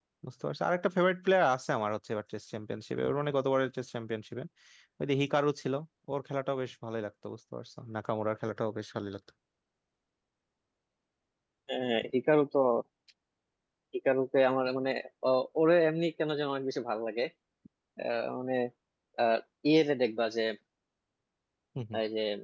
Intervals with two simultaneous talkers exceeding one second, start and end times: none

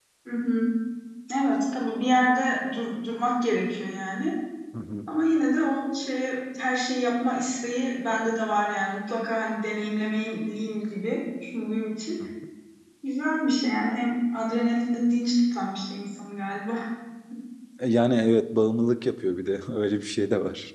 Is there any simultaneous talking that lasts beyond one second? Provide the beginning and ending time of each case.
none

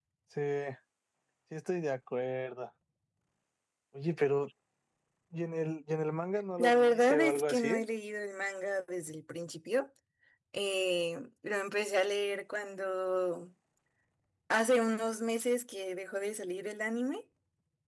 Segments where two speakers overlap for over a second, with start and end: 6.6-7.8

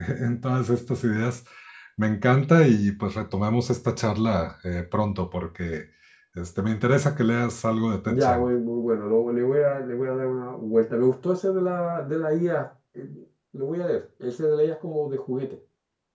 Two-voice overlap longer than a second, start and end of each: none

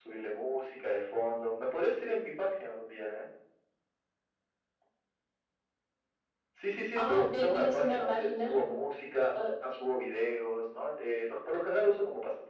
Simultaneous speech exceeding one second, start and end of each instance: 7.0-8.6

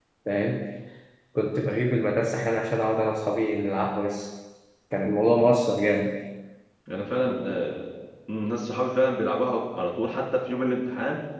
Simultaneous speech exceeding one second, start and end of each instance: none

